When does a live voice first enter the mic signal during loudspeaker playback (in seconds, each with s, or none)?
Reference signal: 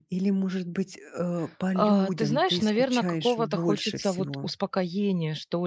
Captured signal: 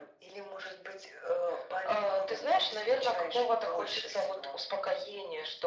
none